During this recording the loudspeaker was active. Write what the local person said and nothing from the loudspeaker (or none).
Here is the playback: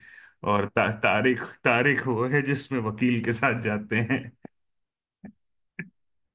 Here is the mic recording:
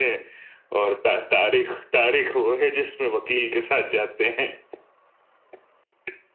none